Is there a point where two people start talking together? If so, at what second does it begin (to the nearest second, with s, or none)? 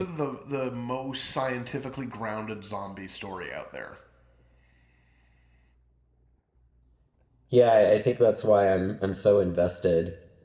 none